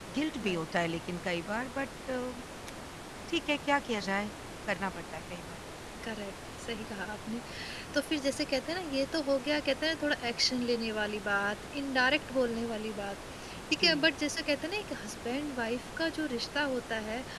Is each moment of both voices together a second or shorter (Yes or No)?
Yes